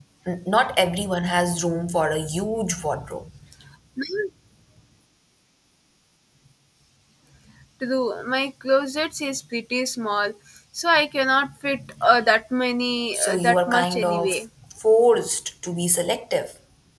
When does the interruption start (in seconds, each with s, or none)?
13.1 s